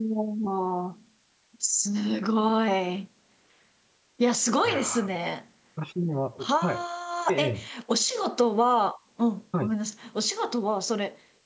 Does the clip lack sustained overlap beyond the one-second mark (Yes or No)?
Yes